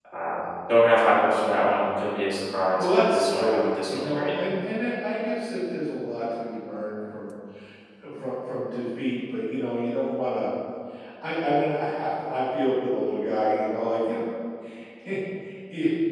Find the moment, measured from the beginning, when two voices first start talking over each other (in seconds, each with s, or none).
2.7 s